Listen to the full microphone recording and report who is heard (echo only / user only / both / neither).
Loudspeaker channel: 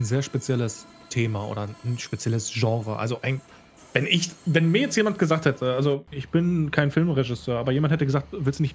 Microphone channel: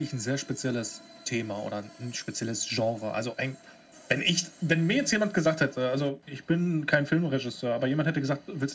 echo only